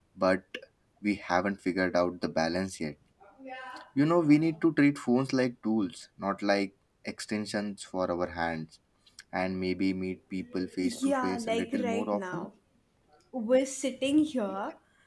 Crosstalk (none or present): present